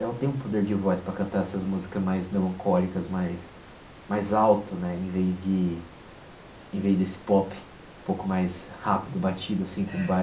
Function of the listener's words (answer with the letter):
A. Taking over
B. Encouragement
A